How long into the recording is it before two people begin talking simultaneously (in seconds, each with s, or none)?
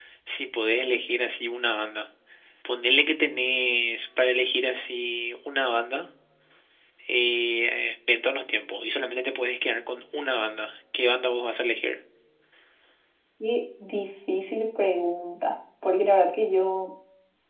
none